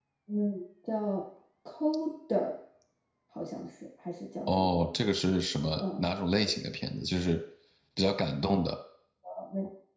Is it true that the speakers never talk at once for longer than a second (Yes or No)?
Yes